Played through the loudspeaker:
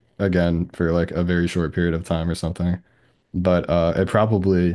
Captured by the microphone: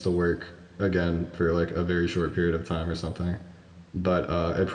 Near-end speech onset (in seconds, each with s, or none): none